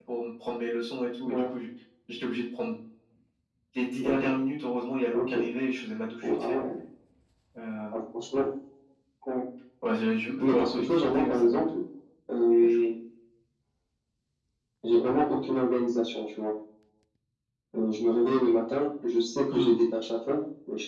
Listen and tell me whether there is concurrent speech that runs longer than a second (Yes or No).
Yes